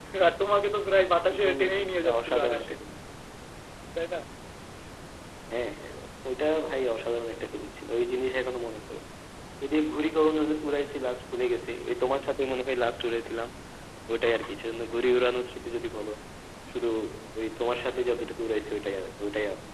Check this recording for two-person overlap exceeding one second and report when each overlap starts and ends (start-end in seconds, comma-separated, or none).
1.3-2.7